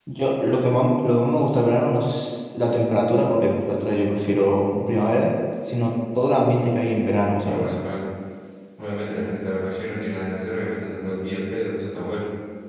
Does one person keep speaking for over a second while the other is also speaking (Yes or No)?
No